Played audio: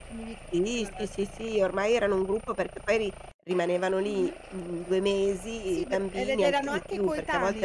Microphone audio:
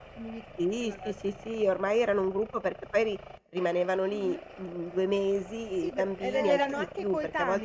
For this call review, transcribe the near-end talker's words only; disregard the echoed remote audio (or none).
Eh.